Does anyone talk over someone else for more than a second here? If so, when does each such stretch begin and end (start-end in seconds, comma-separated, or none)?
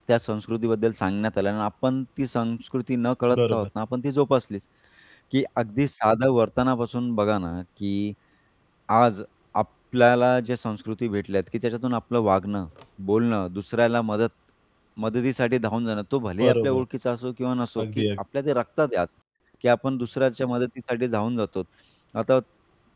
none